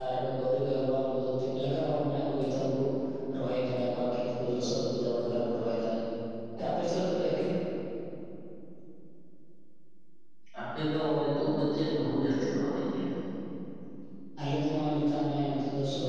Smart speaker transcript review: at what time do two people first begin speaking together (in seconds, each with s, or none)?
none